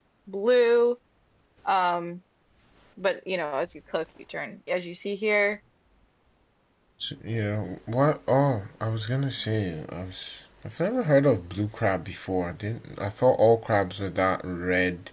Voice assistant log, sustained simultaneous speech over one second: none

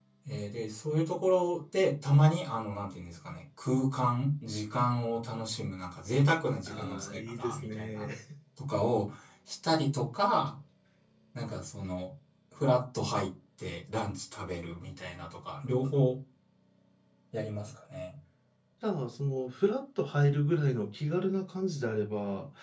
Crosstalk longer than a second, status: present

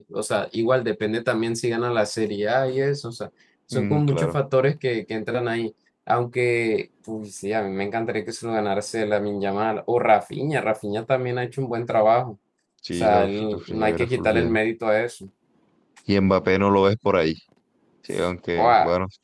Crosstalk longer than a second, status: present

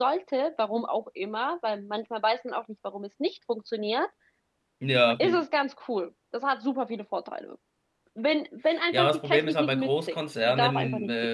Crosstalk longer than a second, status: present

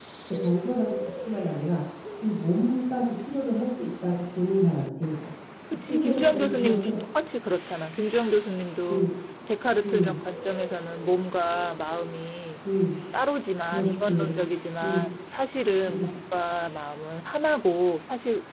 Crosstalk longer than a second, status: present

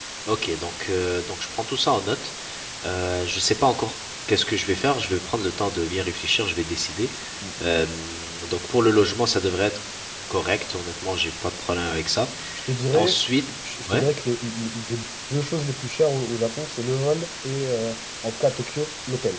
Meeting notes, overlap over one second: none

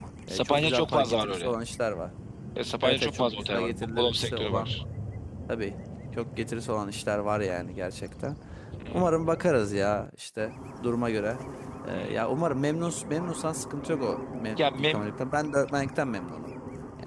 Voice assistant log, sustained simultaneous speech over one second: present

